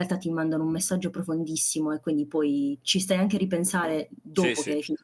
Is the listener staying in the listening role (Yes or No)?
No